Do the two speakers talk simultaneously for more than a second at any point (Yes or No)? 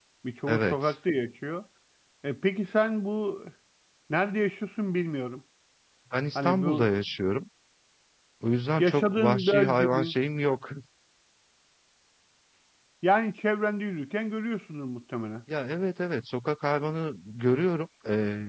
Yes